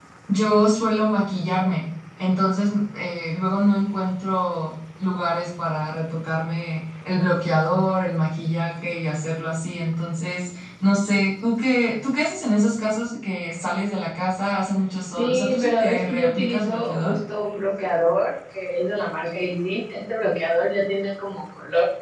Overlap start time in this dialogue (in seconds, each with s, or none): 15.2 s